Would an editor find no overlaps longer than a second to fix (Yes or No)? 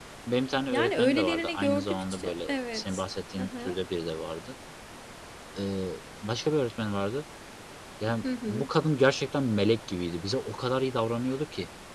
No